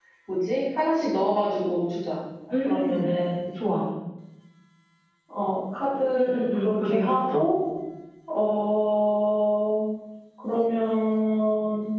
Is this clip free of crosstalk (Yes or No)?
No